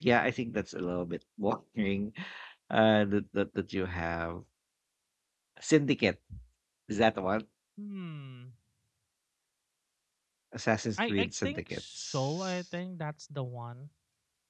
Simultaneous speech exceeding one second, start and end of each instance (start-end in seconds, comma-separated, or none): 11.0-12.6